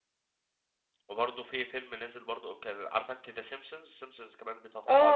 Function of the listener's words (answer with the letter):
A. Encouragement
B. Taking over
B